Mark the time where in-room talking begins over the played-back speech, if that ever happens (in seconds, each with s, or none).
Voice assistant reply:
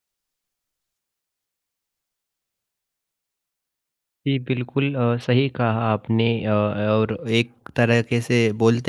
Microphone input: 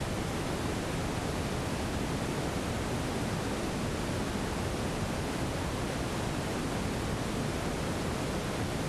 none